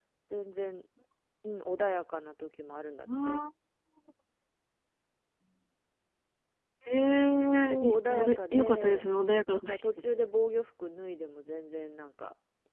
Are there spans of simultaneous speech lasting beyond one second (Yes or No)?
Yes